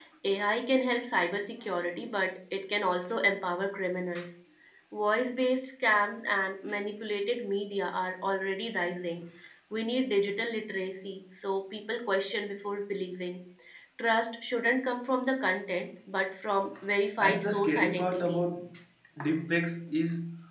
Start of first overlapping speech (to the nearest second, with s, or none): 17 s